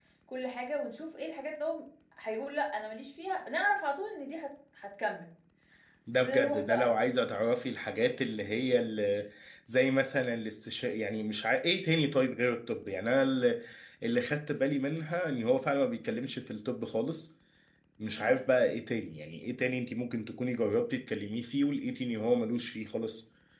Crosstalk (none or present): present